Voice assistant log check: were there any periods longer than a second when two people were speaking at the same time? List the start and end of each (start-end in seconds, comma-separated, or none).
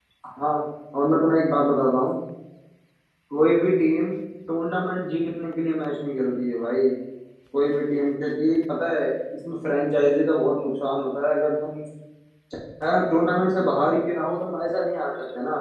none